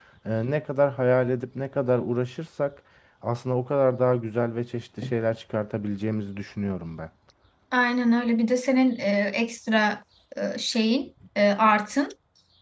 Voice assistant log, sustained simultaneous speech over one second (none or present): none